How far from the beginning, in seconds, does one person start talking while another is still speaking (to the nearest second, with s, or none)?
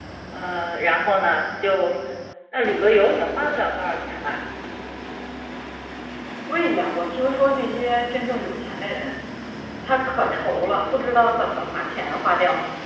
none